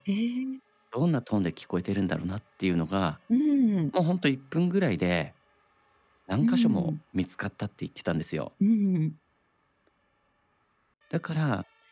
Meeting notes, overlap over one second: none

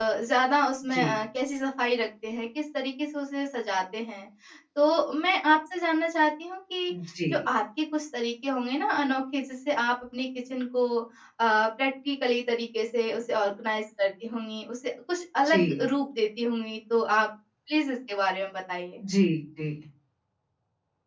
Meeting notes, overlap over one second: none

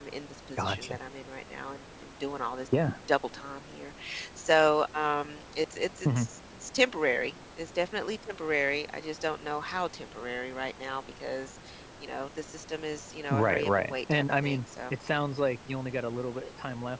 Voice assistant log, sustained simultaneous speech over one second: present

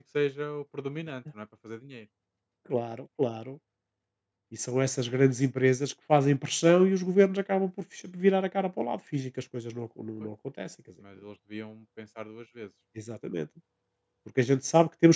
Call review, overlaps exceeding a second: none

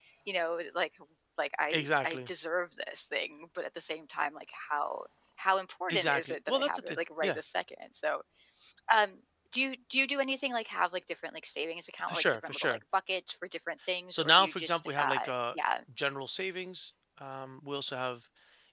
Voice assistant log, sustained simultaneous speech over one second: present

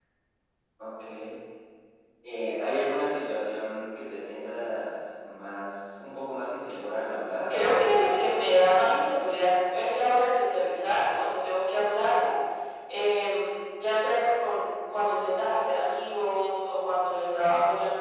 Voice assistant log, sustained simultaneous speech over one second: present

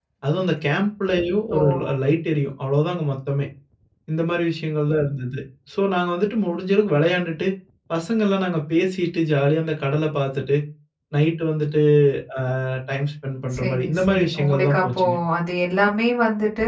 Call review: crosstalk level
present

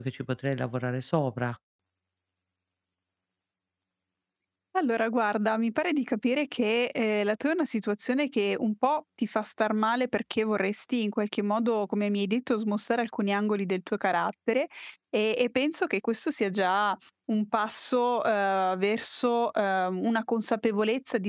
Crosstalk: none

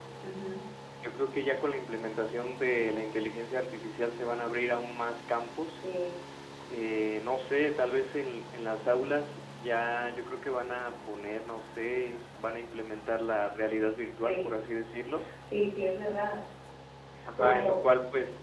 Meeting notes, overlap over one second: none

